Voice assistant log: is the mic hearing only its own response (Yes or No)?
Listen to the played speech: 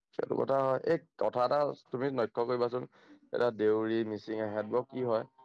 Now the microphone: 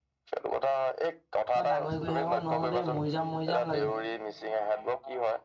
No